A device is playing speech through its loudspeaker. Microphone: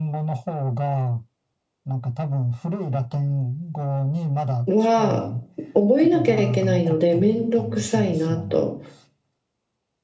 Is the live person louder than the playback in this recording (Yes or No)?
Yes